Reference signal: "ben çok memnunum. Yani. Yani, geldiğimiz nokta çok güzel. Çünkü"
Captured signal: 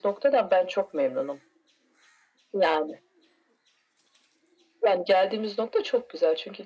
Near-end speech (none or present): none